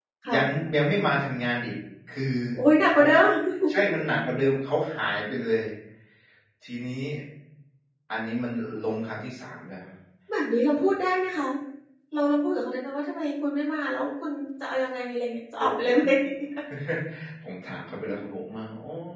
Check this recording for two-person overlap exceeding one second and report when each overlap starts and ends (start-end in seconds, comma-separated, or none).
none